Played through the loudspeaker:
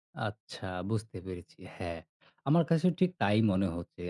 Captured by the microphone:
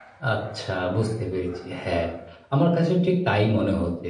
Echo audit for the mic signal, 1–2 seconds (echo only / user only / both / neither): echo only